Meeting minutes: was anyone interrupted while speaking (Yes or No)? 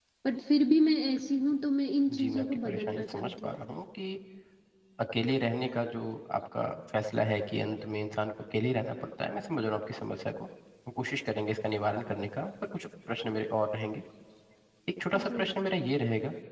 Yes